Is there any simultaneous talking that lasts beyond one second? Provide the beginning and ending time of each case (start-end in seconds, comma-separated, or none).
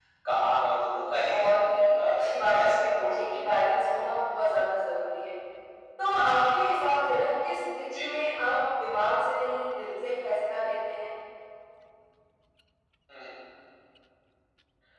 1.8-3.4